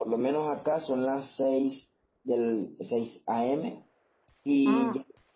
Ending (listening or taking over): listening